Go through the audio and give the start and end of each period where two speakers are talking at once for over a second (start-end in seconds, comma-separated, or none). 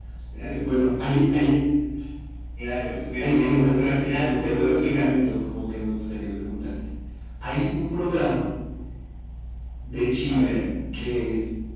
3.2-5.1